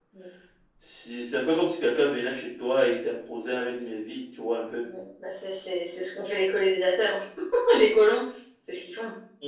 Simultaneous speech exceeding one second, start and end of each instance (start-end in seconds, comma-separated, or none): none